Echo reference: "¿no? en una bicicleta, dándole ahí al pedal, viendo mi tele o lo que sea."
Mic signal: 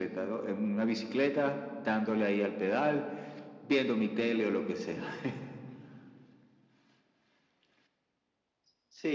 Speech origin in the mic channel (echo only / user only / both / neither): echo only